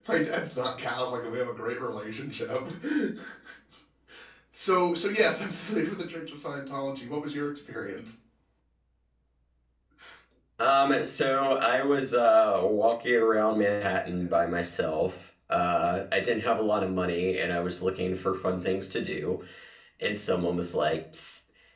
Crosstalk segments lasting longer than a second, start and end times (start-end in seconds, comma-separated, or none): none